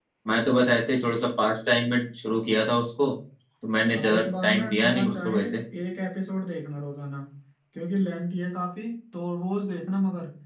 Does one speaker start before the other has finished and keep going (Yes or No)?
Yes